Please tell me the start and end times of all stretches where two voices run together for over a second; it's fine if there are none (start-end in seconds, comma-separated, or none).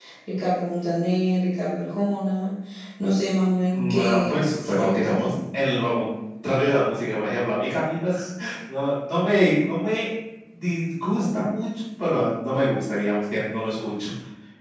3.7-5.3